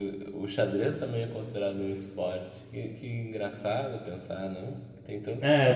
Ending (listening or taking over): taking over